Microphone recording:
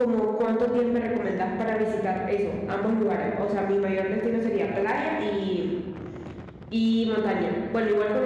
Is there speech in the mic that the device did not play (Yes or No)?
Yes